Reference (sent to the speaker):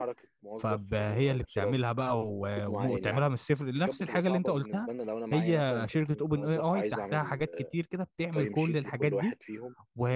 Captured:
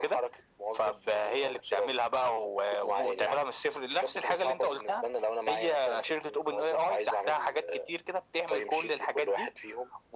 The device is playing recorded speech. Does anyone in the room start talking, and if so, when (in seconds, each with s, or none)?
none